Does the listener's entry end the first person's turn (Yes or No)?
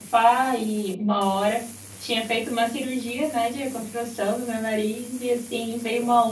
No